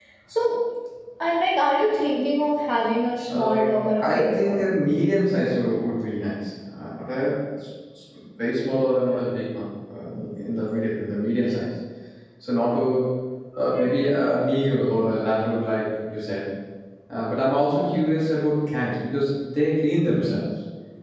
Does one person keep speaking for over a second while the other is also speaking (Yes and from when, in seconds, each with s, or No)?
Yes, from 3.3 s